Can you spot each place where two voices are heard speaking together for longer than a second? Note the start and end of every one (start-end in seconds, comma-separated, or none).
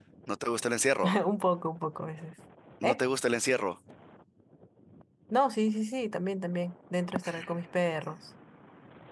none